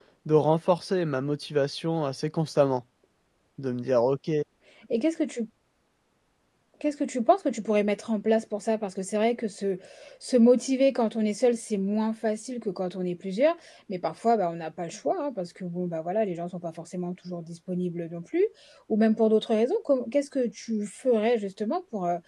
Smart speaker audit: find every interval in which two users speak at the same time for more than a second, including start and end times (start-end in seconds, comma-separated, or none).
none